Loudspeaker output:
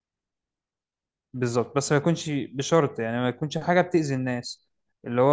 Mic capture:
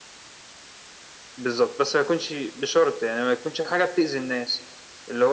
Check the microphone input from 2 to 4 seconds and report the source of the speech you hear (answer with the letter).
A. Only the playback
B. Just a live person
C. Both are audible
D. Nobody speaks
A